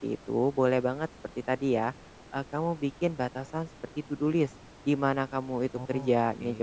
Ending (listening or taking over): listening